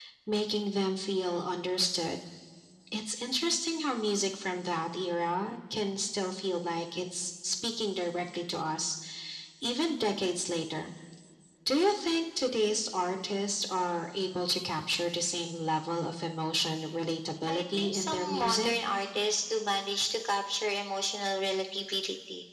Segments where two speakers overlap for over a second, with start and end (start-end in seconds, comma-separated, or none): 17.5-18.7